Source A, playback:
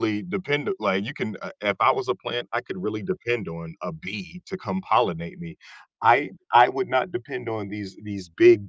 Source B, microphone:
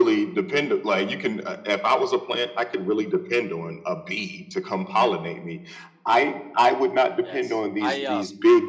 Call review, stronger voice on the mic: echo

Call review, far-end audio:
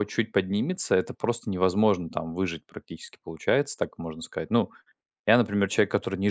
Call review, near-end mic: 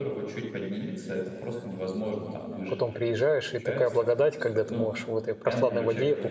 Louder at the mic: user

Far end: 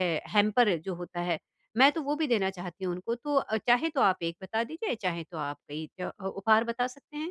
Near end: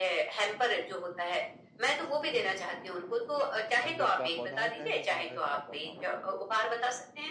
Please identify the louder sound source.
echo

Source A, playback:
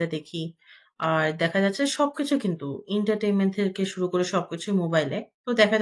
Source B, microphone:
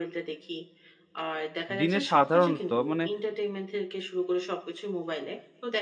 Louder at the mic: user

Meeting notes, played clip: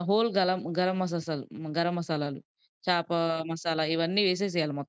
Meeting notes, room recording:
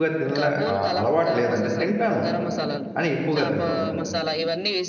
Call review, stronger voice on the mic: user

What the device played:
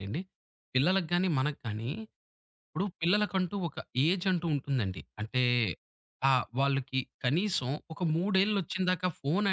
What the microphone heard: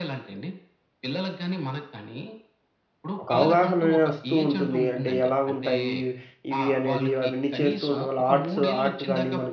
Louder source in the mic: user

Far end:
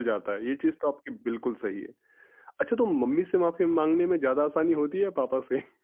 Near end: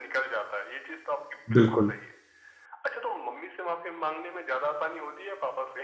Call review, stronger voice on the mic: user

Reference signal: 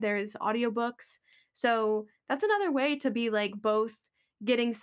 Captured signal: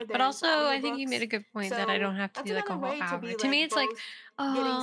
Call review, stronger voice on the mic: user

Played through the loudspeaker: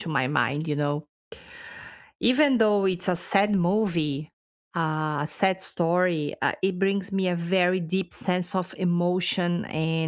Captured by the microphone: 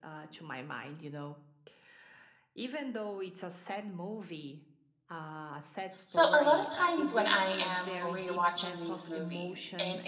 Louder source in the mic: user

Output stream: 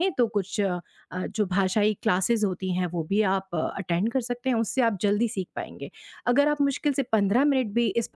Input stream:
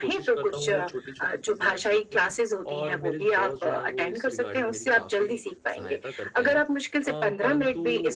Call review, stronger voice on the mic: echo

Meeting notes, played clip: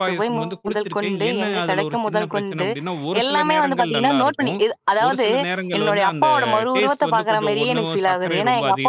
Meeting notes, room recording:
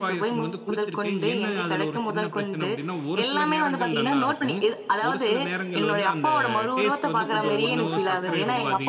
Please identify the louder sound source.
echo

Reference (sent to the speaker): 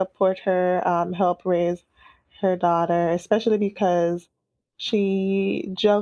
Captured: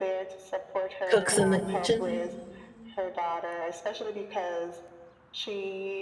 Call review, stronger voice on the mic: user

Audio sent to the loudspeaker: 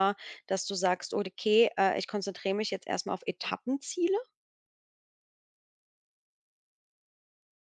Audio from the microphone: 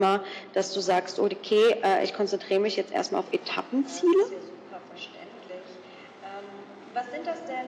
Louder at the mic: echo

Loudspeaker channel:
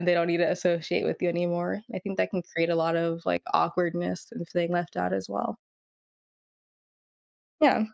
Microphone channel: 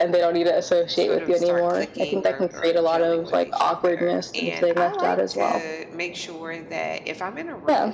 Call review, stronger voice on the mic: echo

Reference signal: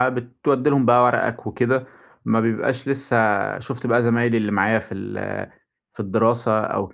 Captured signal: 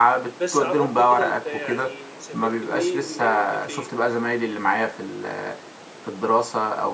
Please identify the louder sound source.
echo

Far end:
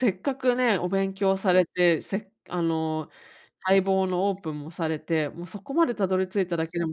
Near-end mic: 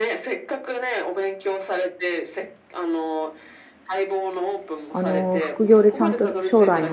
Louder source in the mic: user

